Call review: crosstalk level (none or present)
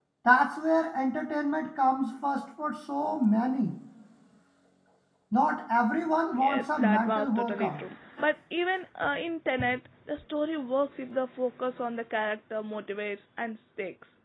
present